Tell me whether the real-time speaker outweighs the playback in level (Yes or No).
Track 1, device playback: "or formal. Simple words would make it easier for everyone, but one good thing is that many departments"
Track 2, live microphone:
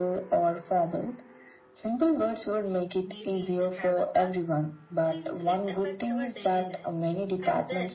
No